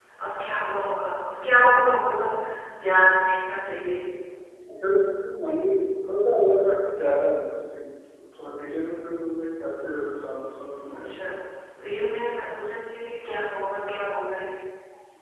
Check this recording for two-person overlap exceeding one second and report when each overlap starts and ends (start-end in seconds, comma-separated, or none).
none